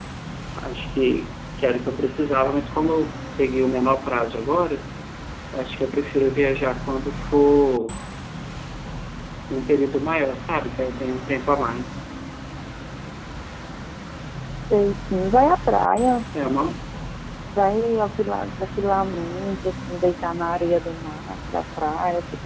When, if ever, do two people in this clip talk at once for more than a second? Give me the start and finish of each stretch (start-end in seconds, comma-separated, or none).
none